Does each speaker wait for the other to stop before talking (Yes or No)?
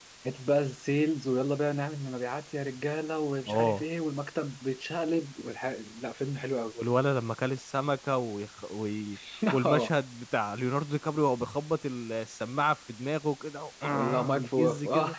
No